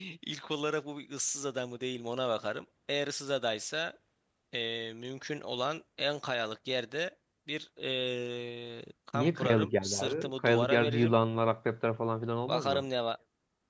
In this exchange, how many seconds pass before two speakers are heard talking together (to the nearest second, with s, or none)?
9 s